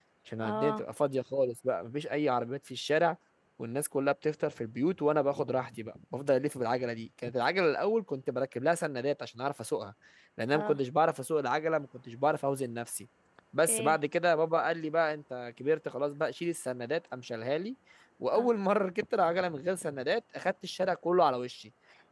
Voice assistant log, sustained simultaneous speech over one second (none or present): none